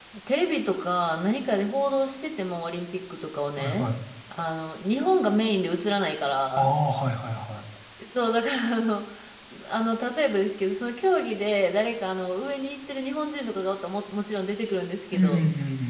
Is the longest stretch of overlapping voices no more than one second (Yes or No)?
Yes